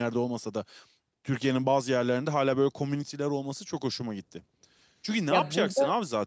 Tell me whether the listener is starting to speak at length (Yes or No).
No